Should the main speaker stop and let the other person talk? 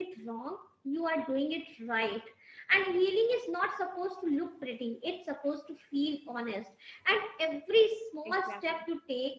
No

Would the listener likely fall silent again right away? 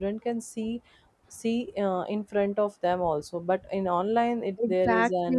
No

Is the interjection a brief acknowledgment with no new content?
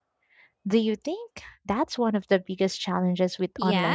No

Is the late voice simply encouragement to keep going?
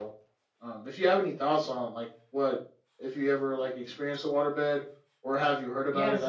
No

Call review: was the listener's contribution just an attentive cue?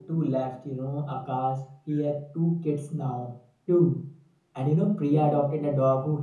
Yes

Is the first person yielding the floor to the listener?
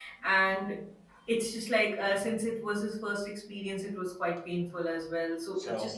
No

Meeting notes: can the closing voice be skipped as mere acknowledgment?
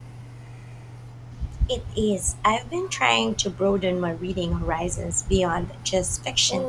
No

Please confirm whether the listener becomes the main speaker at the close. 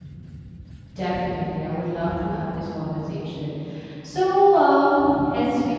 No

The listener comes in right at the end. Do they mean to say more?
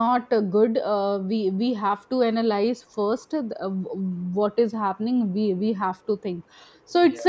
No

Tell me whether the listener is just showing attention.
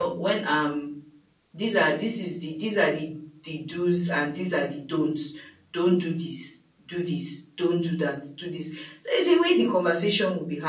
Yes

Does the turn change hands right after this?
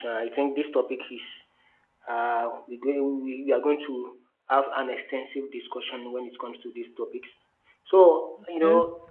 No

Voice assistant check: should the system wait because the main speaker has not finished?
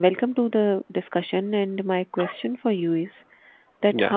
Yes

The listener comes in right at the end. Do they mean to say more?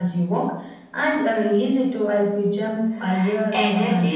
Yes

